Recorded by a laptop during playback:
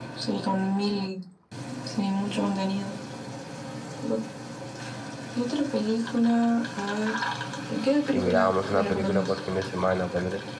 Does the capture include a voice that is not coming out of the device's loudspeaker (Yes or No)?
Yes